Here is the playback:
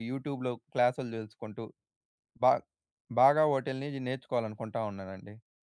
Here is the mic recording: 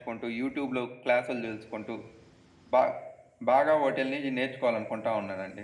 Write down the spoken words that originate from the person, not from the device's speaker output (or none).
none